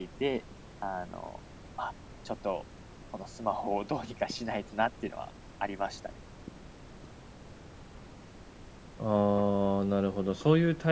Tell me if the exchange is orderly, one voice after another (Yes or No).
Yes